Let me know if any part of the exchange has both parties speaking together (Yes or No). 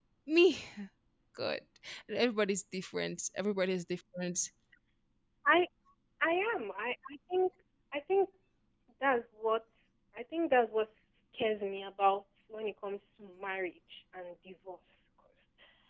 No